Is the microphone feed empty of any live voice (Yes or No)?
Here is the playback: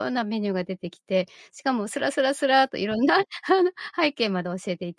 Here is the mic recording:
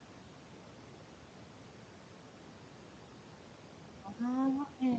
No